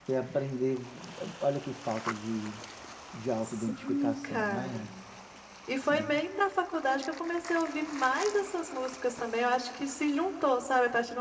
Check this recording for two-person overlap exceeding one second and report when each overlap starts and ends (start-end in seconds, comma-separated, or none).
3.6-4.9